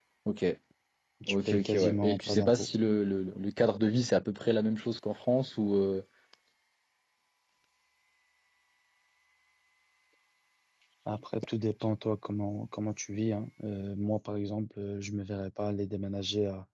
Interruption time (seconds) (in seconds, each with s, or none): 1.3 s